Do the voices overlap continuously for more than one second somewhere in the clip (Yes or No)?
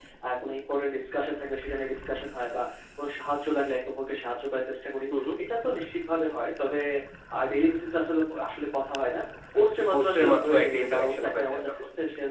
Yes